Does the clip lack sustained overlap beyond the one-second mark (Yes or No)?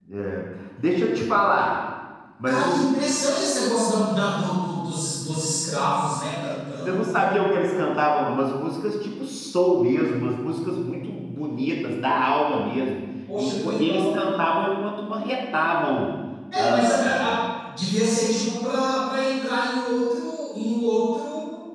No